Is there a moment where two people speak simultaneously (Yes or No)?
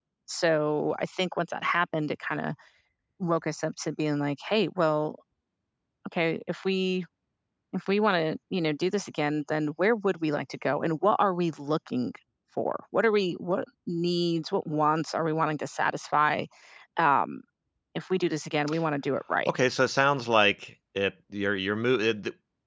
No